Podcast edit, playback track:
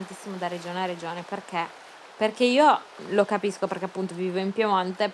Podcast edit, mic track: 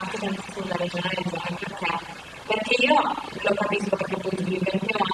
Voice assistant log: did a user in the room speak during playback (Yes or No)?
No